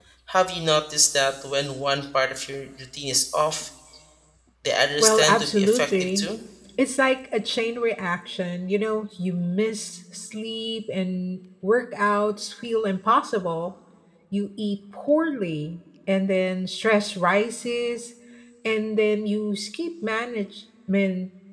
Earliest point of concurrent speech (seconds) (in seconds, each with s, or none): 5.0 s